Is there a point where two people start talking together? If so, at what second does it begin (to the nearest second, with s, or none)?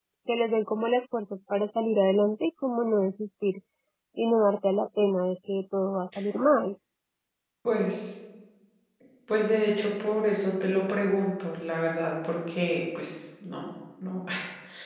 none